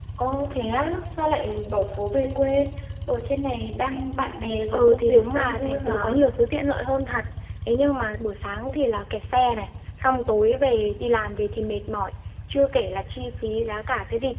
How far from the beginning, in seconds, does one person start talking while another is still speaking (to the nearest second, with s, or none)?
5 s